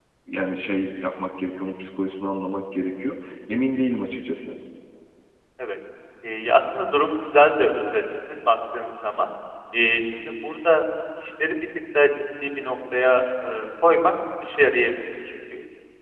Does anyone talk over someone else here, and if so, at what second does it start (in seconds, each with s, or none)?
none